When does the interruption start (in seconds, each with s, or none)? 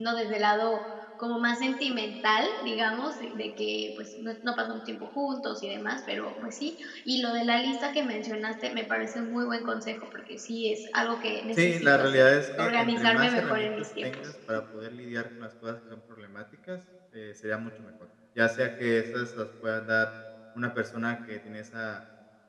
11.5 s